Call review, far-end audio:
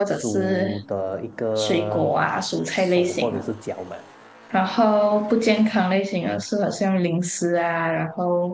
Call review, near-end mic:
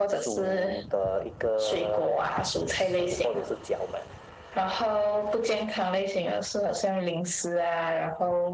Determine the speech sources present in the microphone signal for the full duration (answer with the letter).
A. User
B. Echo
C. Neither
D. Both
B